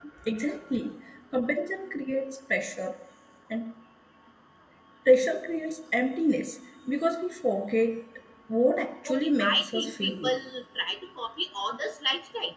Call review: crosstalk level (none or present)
present